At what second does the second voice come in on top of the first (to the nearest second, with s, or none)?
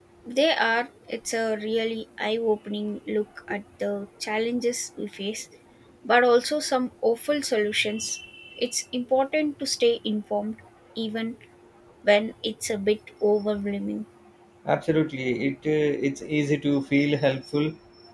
none